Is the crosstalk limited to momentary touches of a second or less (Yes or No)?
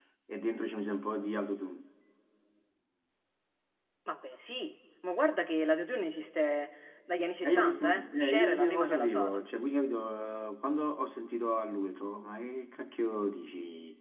No